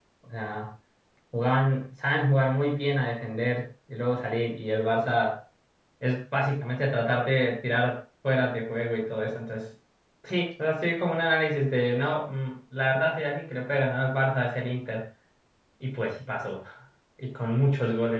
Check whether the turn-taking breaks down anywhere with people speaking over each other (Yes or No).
No